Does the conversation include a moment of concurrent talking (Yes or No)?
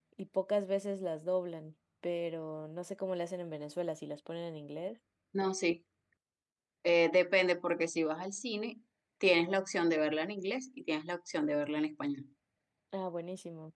No